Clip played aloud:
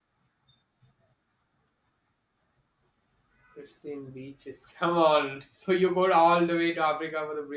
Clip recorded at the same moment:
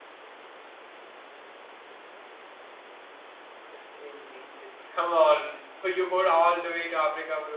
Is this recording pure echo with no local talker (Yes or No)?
Yes